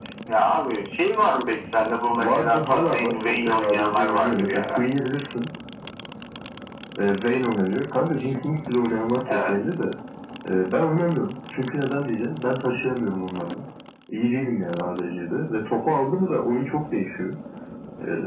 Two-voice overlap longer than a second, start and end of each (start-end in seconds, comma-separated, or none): 2.2-4.8